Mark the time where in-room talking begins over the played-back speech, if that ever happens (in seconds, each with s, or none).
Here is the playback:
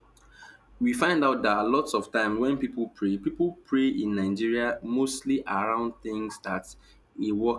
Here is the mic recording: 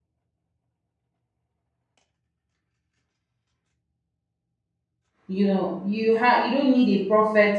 5.2 s